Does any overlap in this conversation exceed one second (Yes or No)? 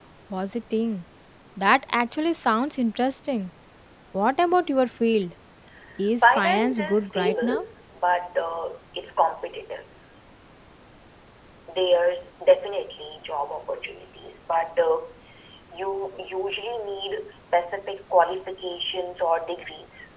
Yes